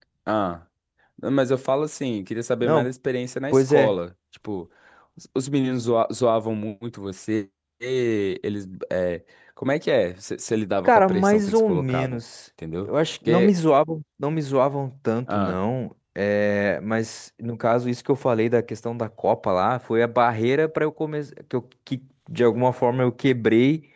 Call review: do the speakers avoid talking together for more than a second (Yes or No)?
No